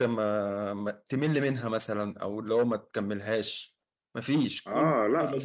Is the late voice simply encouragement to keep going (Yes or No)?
No